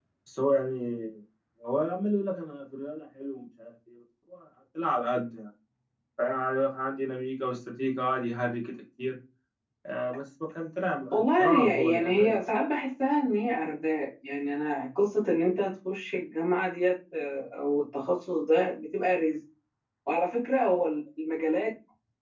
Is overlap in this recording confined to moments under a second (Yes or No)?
No